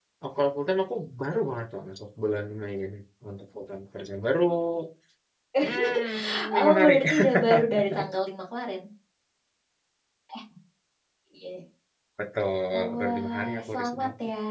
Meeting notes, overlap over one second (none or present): present